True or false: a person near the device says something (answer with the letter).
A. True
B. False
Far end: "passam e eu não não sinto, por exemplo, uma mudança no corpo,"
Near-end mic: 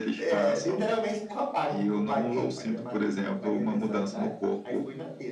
A